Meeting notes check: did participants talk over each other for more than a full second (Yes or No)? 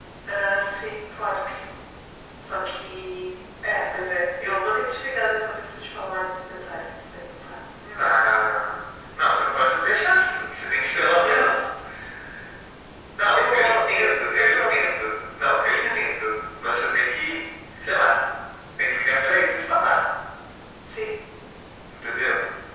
Yes